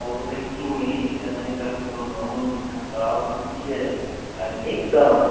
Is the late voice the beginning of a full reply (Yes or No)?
Yes